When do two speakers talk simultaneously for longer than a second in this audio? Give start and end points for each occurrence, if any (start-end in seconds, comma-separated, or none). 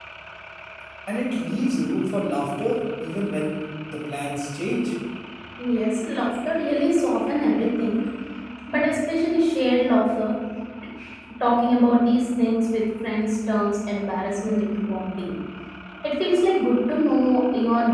none